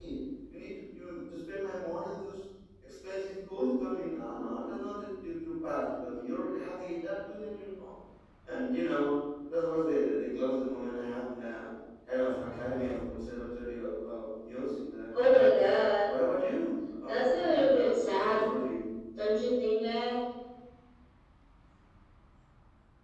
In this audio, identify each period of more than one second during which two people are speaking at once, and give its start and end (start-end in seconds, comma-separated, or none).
17.1-18.4